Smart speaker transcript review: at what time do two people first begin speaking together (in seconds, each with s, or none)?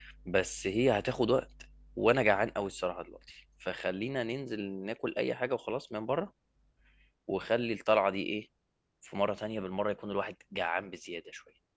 none